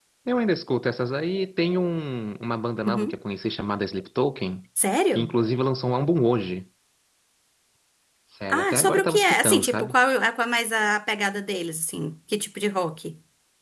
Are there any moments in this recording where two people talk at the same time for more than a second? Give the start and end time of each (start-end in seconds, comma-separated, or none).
8.5-9.9